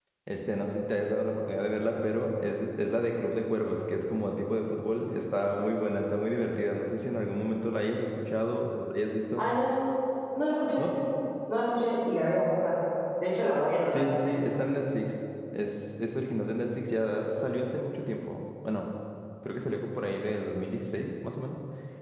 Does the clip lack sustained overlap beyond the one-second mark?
Yes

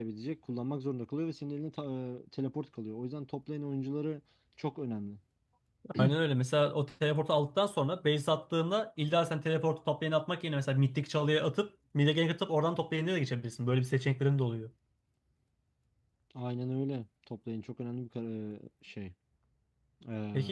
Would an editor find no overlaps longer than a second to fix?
Yes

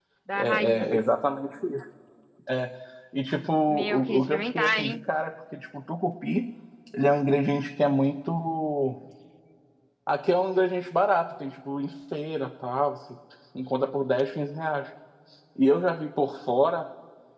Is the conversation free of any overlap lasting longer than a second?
No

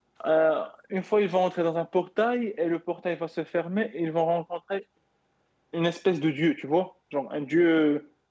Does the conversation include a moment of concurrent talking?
No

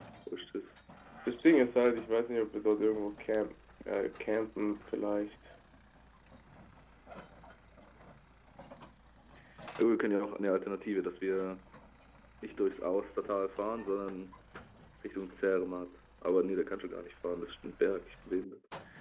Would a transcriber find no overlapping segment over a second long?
Yes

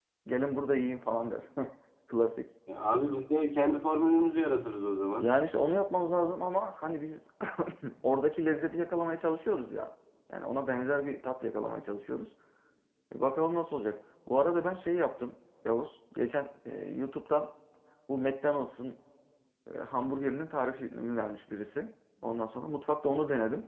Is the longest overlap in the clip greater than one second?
No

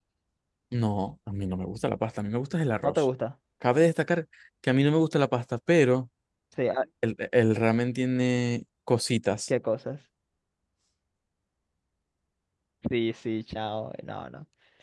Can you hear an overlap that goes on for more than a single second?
No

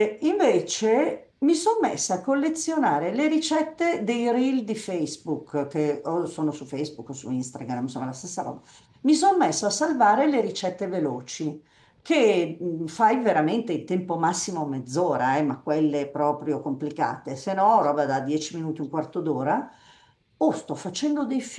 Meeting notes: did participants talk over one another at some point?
No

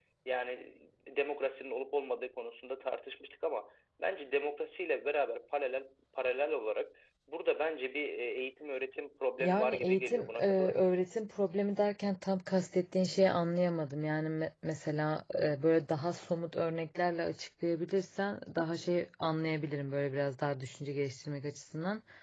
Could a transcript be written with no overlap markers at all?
No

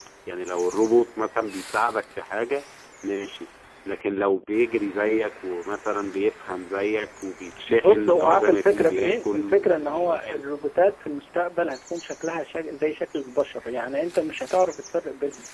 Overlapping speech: Yes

